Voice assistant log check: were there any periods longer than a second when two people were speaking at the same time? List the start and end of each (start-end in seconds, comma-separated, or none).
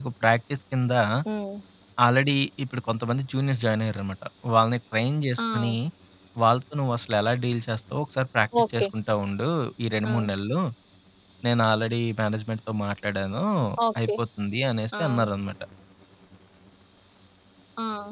none